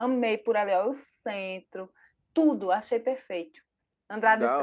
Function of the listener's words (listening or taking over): taking over